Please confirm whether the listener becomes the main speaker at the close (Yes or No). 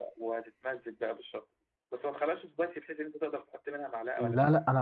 Yes